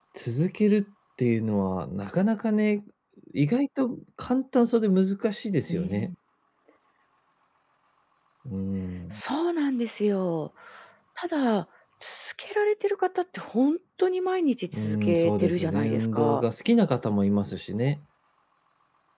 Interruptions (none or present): present